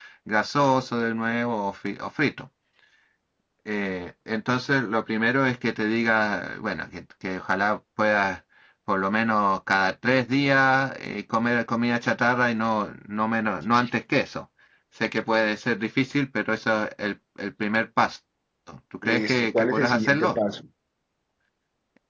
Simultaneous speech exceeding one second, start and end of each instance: 19.0-20.4

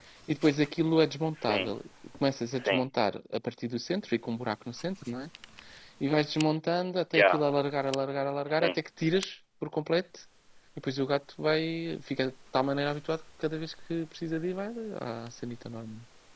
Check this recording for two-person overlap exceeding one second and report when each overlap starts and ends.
none

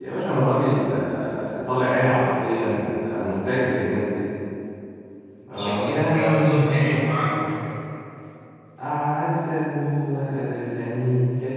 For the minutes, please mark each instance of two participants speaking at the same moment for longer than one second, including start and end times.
5.5-7.5

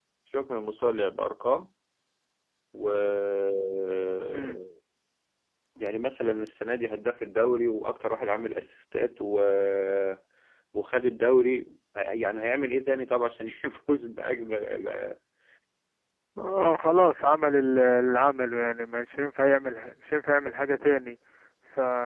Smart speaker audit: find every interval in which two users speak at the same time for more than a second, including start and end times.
none

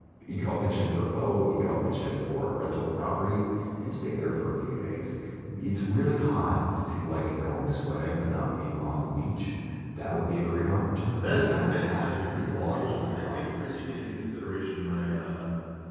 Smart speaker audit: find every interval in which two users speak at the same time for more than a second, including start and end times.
11.1-13.8

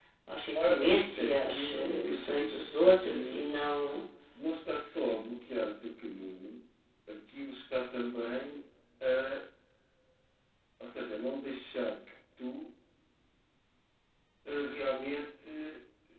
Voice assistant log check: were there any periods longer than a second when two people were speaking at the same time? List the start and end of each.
0.5-3.6

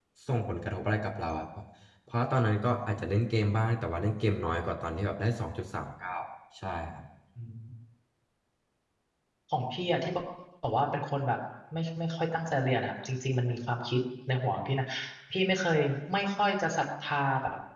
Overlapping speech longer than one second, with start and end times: none

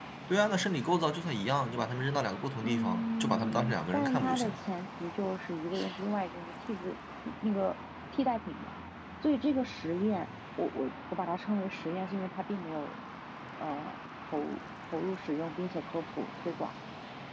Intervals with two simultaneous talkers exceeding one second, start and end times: 2.6-4.6

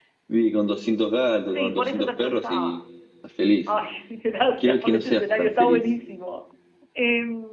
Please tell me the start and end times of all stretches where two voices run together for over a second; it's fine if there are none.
1.5-2.8, 4.6-5.8

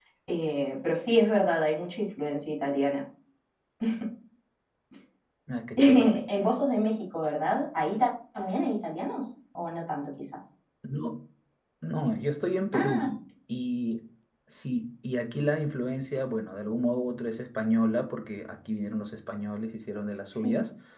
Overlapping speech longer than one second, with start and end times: none

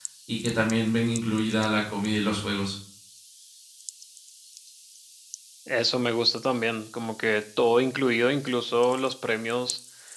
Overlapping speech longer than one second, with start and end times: none

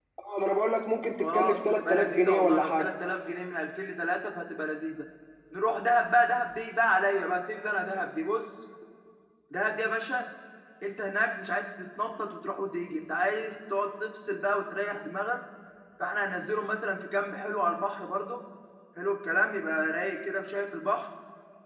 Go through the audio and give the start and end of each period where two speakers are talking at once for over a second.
1.2-2.9

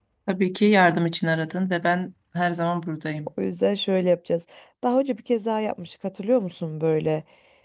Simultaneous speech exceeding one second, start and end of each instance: none

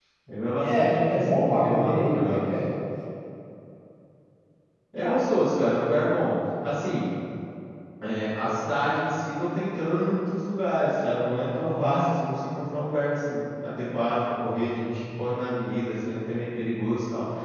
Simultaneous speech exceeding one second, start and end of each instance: 0.6-2.4

